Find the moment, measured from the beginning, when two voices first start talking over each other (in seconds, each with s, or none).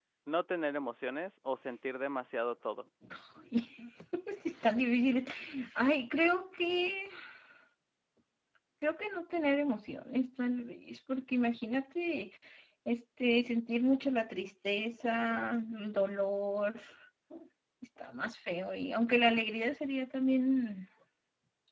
none